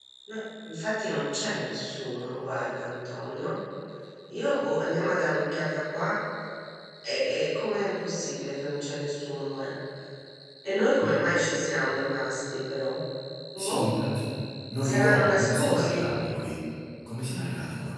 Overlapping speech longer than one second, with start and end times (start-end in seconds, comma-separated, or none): 14.8-16.1